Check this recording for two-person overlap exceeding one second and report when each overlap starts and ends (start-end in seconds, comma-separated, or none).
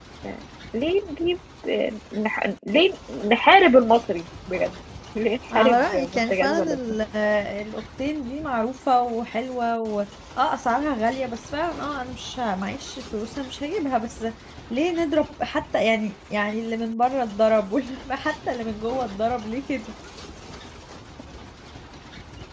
5.5-6.8